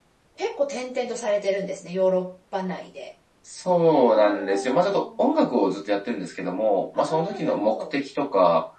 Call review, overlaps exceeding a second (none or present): present